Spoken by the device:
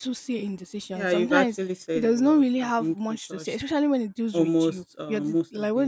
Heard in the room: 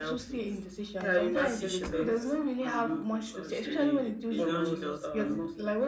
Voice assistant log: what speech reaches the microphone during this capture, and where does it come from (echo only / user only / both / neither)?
both